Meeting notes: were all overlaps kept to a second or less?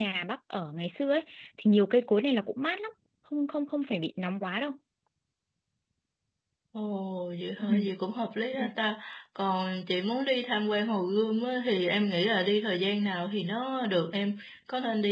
Yes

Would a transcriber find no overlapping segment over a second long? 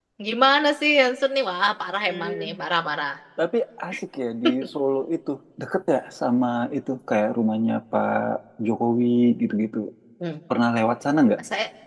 Yes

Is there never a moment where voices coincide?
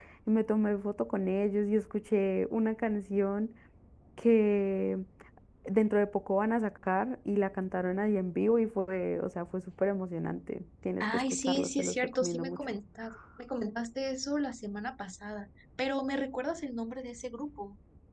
No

